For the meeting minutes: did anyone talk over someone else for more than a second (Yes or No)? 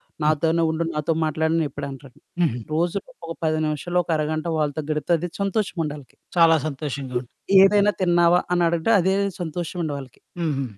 No